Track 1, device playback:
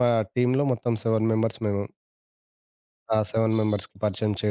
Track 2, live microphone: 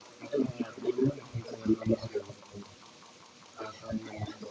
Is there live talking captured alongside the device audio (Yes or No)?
No